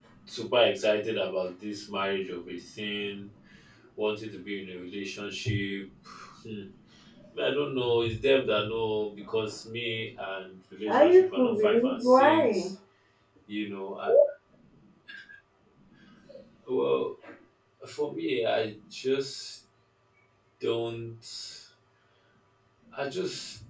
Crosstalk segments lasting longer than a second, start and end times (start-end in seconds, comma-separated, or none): 10.9-12.7